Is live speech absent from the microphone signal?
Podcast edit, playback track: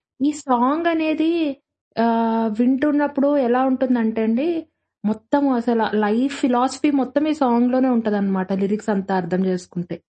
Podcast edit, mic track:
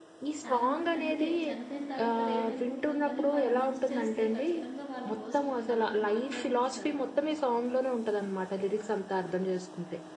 No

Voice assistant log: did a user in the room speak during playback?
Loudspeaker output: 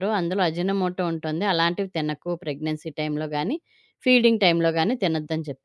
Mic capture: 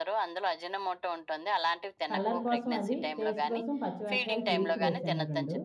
Yes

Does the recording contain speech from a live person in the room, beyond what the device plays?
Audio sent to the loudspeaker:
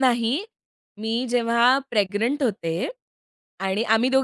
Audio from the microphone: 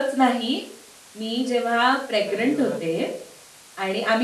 Yes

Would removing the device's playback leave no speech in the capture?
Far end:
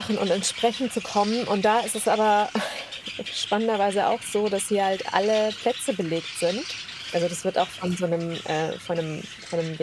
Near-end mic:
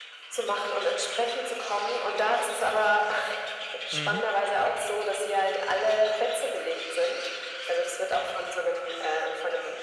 No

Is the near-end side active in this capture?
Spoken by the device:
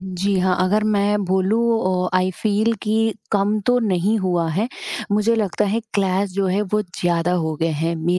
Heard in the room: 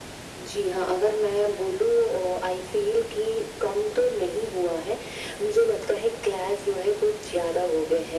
No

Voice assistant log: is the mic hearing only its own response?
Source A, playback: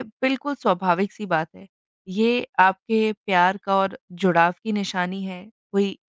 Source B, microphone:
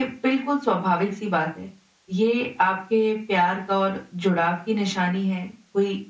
Yes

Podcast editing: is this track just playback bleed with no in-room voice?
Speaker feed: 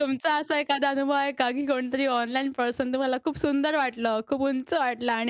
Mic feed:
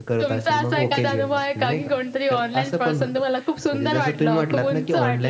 No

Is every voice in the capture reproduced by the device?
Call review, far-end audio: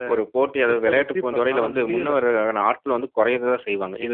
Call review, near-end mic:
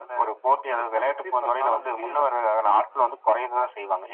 Yes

